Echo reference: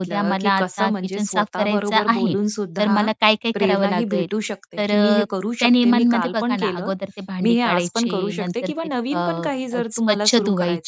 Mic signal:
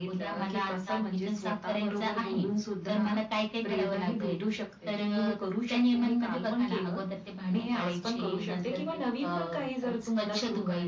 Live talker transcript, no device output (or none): none